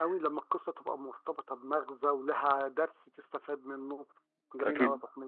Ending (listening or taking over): taking over